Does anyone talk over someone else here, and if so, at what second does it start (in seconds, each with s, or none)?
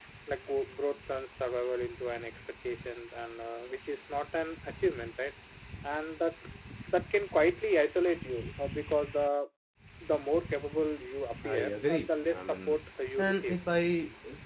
11.4 s